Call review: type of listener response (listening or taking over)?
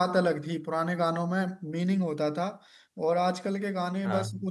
listening